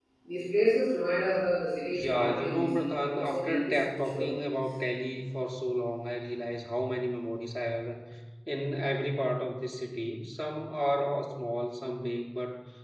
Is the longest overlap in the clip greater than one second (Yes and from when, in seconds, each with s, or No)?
Yes, from 1.9 s